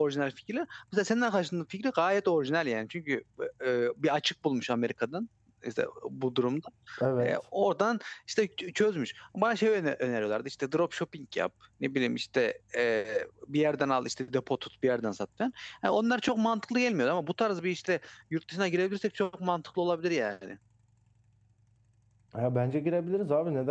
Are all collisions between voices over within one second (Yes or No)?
Yes